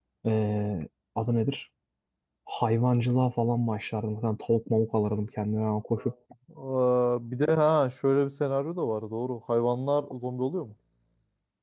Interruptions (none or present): none